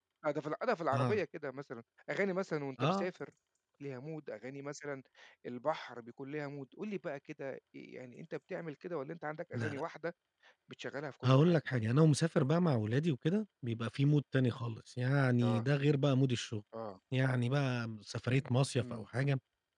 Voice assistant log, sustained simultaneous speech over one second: none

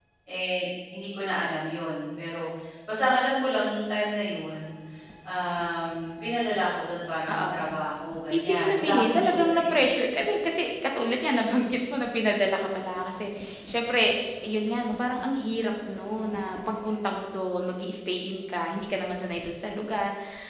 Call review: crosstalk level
present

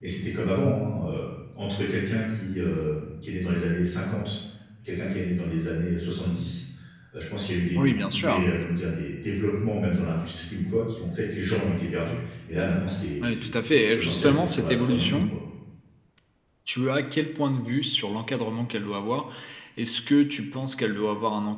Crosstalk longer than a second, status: present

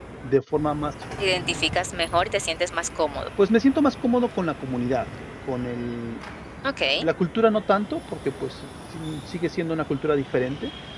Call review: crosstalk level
none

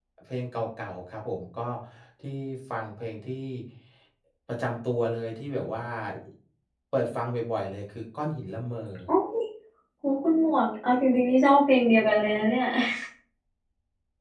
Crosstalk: none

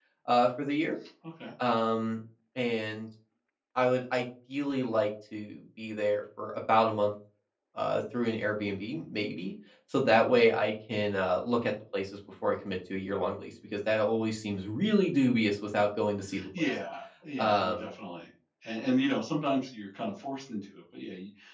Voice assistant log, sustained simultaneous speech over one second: none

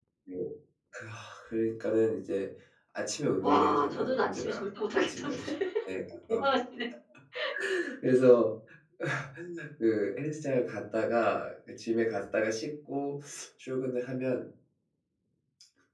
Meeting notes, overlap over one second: present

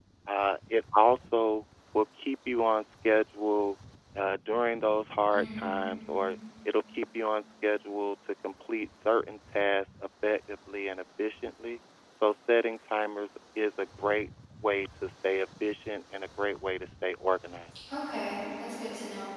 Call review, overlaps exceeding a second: none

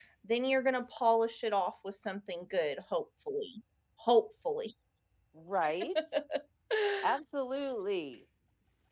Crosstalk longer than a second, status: none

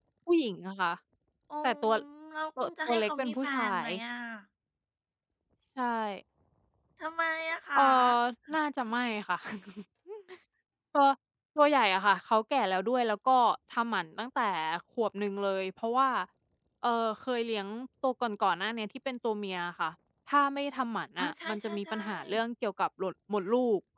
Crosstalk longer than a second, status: present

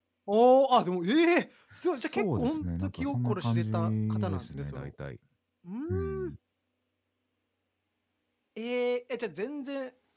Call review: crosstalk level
present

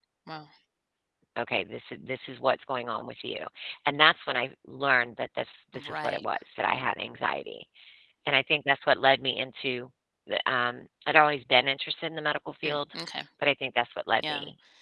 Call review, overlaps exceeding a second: none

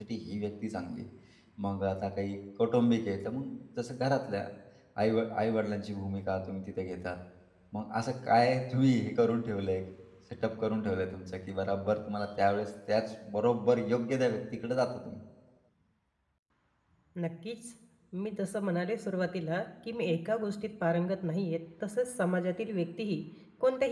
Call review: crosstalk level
none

